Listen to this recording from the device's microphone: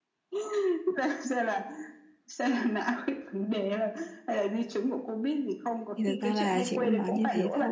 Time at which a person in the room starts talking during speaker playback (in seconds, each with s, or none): 6.0 s